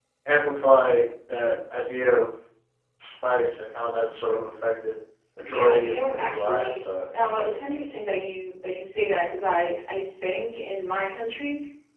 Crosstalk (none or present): present